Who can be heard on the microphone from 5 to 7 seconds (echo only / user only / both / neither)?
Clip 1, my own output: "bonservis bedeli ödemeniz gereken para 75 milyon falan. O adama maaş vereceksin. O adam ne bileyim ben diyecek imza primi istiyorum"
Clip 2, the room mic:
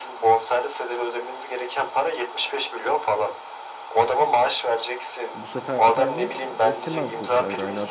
both